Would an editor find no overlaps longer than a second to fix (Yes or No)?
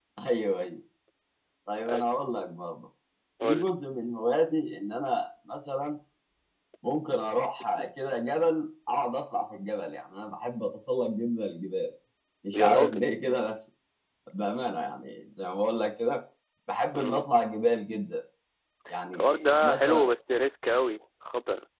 Yes